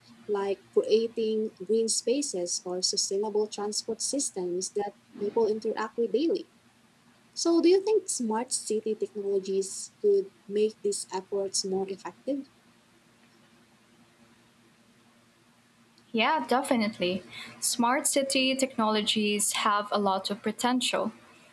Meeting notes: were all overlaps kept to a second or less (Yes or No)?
Yes